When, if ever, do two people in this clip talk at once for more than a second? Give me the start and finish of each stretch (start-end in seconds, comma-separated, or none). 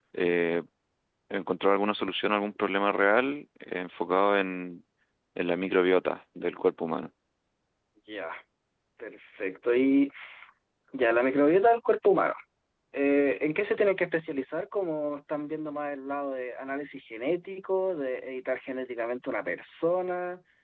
none